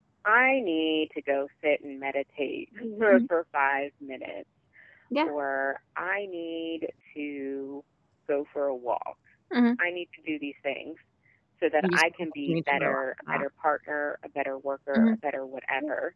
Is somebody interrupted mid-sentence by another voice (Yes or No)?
Yes